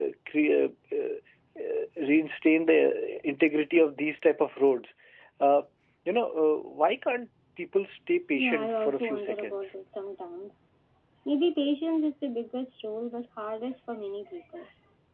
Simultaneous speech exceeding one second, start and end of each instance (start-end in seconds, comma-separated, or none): 8.4-9.7